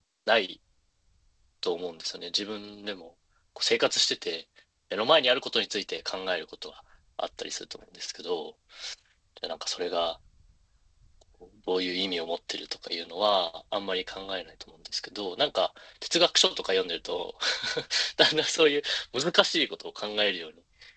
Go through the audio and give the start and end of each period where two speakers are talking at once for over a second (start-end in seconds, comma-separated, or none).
none